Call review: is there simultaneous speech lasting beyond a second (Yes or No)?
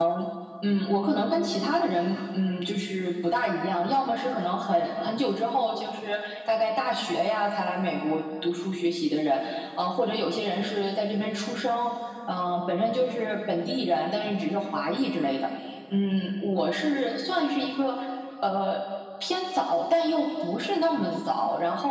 No